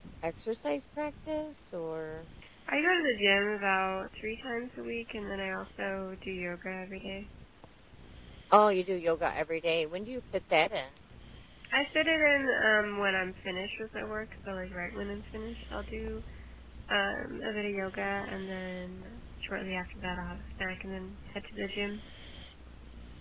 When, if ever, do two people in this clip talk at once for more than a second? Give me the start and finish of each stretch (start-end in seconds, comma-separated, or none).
none